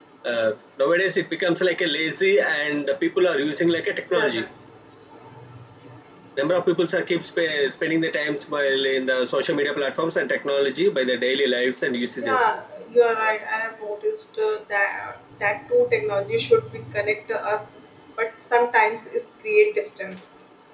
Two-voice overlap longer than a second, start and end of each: none

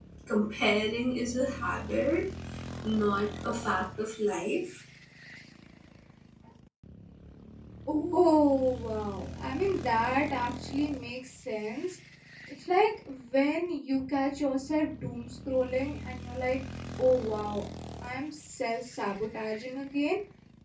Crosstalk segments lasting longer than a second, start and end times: none

